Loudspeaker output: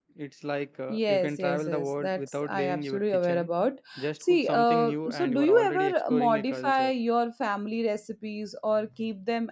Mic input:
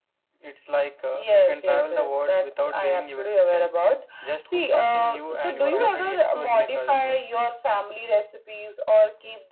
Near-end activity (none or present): none